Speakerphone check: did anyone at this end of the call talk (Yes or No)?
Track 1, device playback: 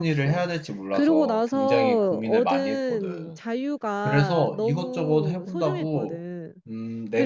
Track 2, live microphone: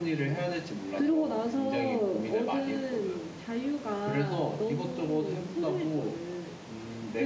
No